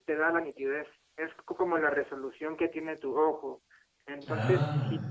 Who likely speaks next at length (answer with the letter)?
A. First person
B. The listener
A